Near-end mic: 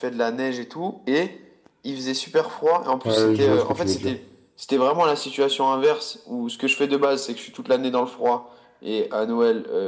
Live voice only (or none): Ouais, je vois ce que tu veux dire.